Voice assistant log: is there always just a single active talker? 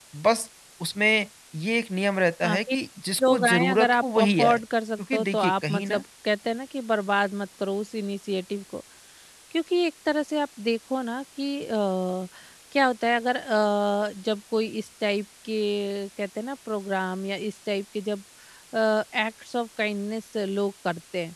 No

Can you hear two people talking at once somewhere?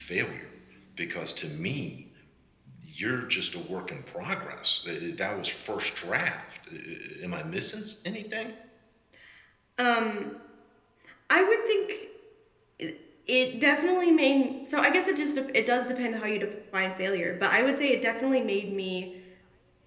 No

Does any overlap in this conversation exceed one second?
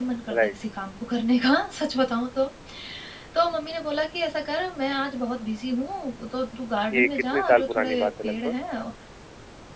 Yes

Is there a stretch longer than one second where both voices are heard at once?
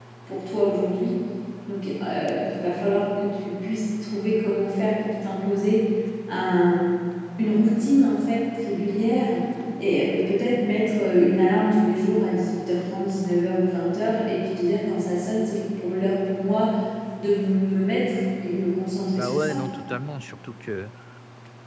No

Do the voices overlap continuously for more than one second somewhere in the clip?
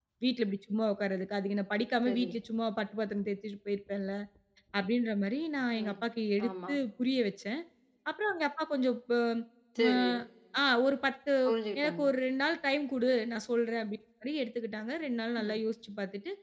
No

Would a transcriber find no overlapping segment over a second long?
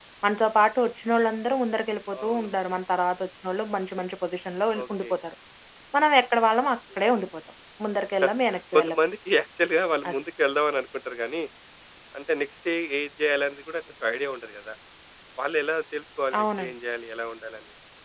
Yes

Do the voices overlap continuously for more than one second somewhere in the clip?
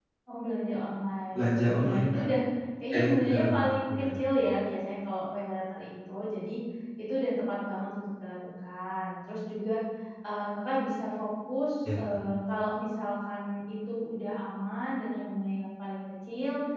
Yes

